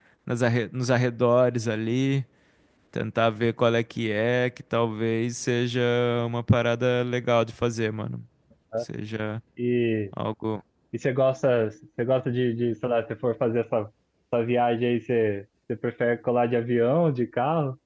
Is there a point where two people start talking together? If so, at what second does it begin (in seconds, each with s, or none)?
none